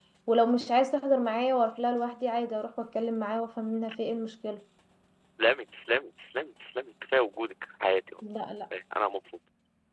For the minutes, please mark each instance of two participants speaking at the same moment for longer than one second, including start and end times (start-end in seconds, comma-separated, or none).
none